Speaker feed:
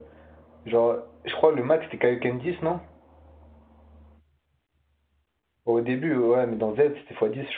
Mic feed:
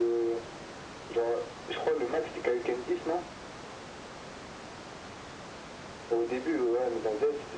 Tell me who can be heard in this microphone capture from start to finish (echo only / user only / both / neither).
echo only